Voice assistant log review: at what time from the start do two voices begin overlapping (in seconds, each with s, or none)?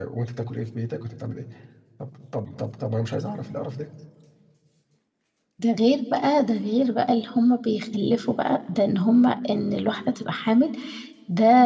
none